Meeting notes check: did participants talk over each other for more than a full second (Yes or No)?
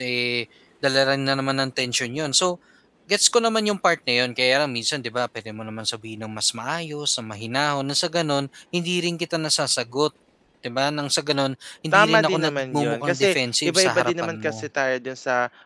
Yes